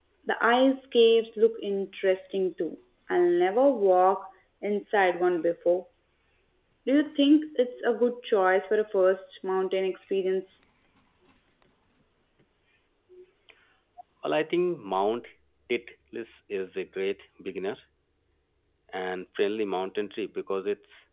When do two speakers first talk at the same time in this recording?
none

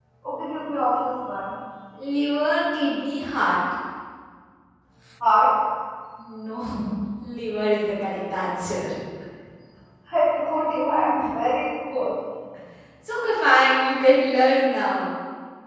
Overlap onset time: none

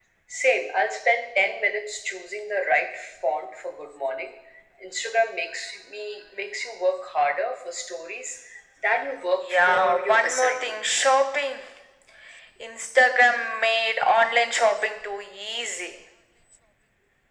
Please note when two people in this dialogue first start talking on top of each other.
9 s

